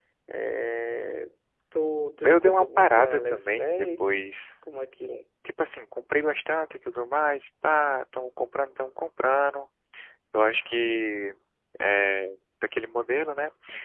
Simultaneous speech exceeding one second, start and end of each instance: 2.2-4.1

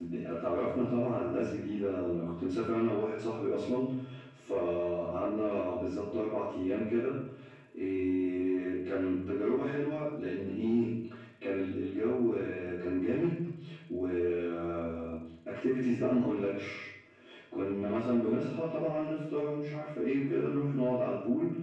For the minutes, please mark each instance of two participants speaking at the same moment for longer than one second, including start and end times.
none

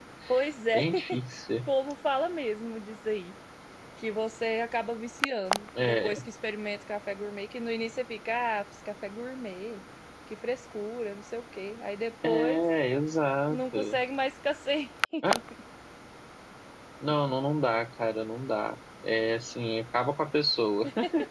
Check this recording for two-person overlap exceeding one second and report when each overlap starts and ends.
none

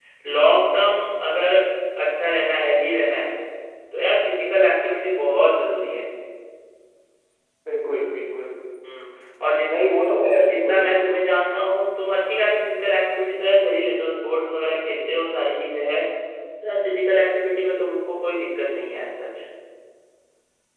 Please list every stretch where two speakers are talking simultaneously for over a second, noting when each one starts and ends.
none

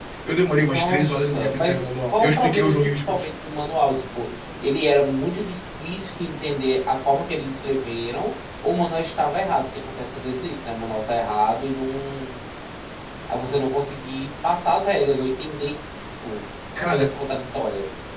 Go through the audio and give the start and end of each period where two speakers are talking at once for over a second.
0.7-3.3

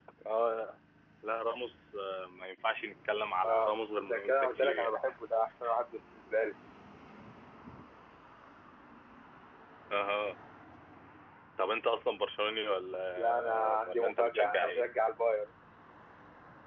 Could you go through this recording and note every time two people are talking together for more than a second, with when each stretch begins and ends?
3.4-5.0, 13.2-14.8

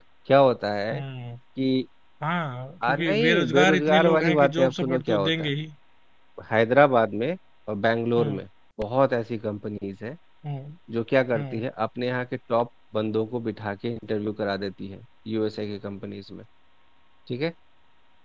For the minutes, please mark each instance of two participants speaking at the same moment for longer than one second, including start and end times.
2.8-5.4

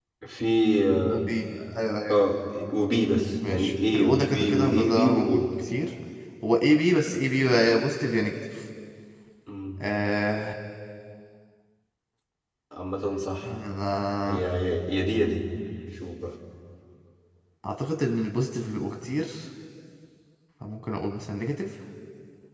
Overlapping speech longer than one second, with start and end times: 3.5-5.4

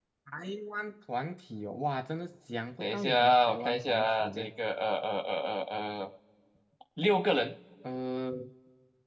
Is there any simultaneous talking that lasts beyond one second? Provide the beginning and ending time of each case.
2.8-4.5

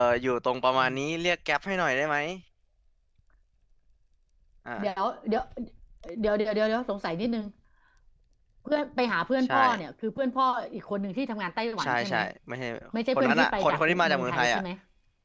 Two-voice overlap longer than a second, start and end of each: 13.2-14.6

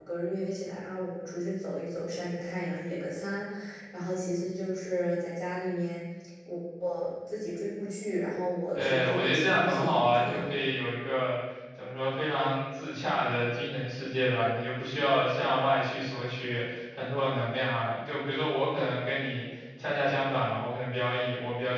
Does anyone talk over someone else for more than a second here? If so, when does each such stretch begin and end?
8.7-10.5

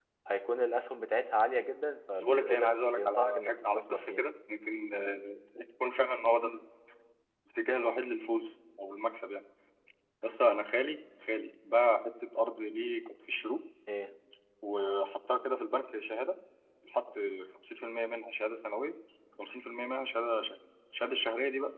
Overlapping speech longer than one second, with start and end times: 2.1-4.2

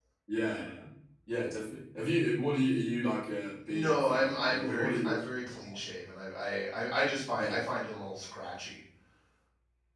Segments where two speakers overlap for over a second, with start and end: 3.7-5.2

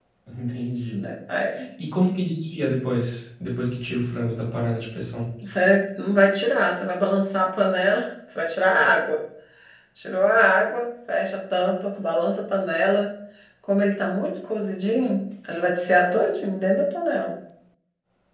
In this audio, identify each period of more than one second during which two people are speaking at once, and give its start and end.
none

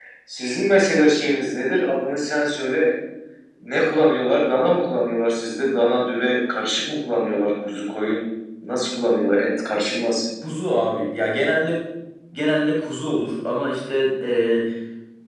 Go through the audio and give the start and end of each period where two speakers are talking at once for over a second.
none

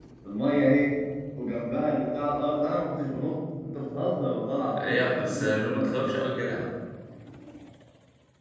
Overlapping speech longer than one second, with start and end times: 4.8-6.1

